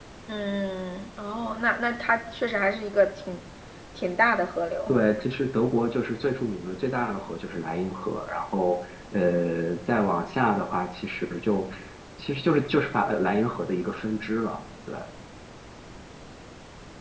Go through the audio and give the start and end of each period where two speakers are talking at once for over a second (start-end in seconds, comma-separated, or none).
none